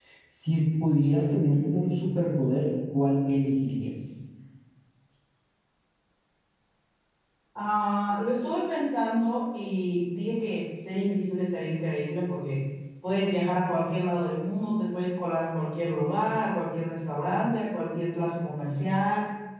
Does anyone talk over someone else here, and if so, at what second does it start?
none

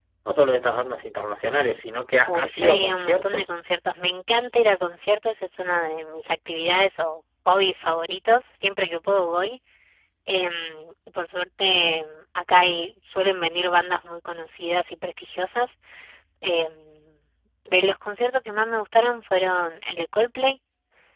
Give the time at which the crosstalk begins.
2 s

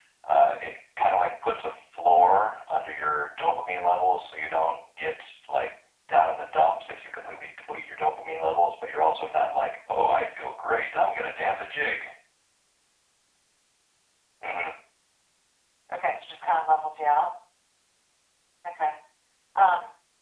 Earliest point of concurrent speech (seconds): none

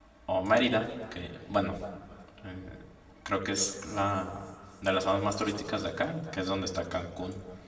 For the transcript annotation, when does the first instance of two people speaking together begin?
none

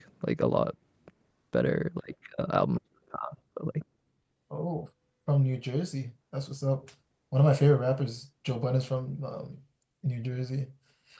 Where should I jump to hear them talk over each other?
none

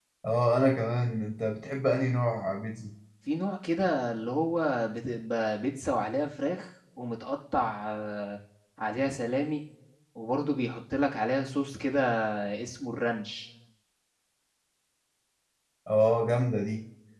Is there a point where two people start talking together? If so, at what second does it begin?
none

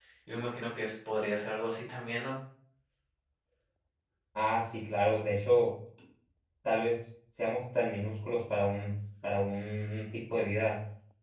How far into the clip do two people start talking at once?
none

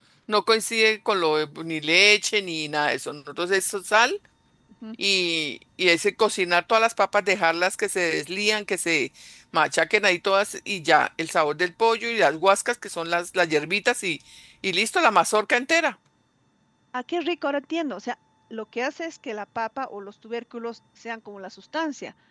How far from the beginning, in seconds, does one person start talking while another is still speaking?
none

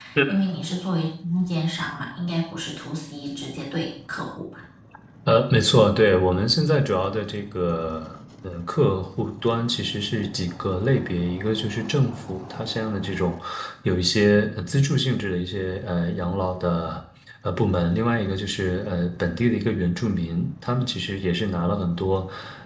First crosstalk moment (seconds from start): none

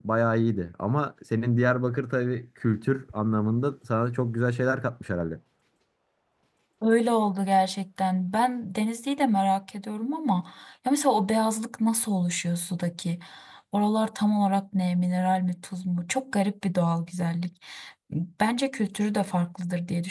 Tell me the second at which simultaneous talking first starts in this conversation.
none

